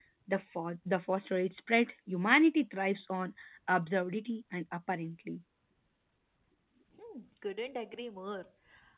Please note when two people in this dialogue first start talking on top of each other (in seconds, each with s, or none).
none